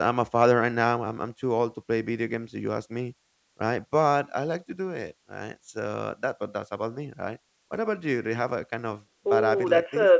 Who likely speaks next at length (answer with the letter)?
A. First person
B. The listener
B